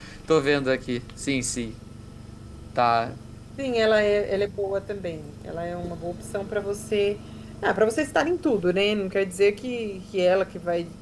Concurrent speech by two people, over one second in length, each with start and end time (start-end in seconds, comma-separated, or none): none